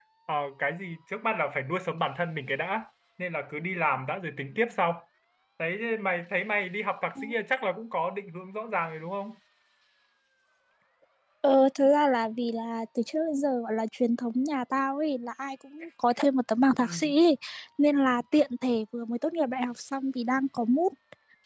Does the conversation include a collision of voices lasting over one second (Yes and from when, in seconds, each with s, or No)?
No